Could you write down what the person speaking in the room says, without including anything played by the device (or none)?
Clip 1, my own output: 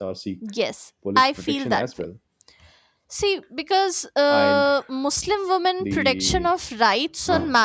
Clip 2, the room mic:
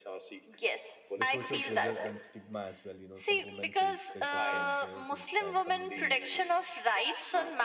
the social pressure and stigma as well you know some women face pressure from relatives and community